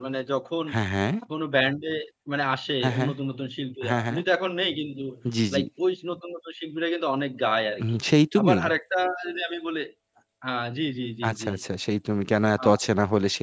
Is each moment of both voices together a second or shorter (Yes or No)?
Yes